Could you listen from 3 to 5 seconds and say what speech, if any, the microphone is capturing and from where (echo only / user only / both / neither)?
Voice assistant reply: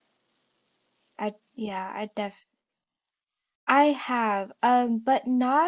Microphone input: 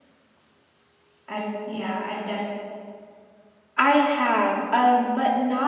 echo only